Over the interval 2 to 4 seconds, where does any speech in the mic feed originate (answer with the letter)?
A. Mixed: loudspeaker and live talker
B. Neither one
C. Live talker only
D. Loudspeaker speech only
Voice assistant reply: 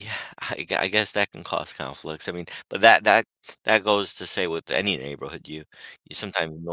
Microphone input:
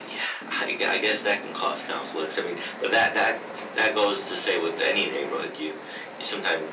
D